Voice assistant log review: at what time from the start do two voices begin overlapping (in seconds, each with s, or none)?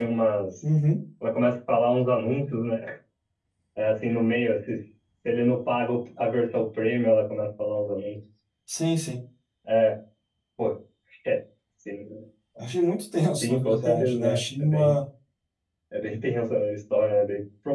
13.4 s